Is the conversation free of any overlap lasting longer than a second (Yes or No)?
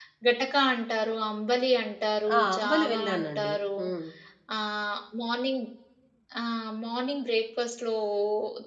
No